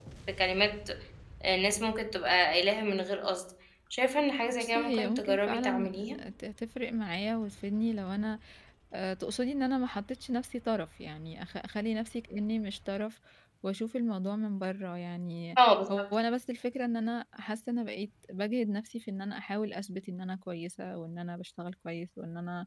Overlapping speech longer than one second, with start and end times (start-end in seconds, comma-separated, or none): 4.5-6.1